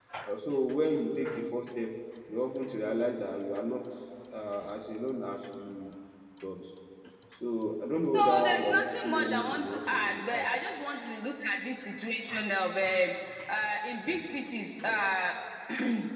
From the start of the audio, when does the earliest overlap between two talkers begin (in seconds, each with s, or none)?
8.1 s